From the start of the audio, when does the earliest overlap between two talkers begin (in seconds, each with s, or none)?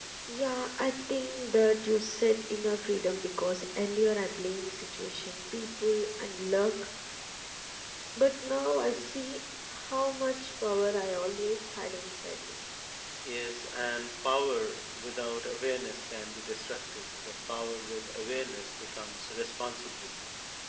none